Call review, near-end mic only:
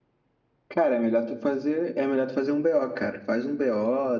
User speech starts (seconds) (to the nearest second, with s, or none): 1 s